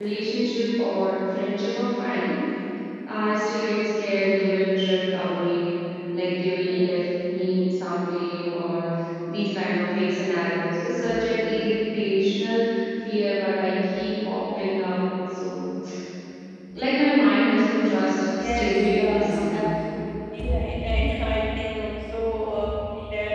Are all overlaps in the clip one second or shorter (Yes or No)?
No